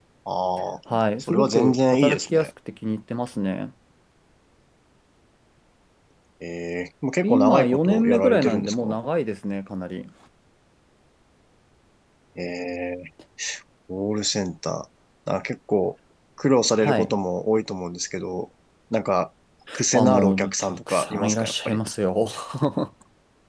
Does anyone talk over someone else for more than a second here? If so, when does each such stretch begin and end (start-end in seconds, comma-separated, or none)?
1.2-2.5, 7.2-9.0, 19.9-21.8